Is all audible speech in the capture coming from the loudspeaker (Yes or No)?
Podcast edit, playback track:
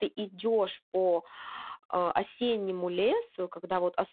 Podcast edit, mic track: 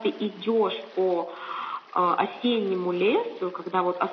Yes